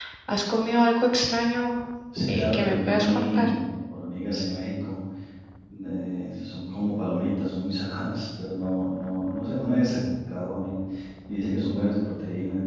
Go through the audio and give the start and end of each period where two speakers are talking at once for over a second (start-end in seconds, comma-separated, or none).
2.3-3.5